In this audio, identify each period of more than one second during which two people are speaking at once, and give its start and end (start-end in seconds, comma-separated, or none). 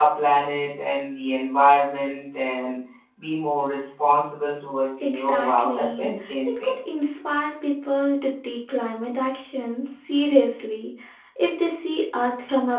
5.0-7.0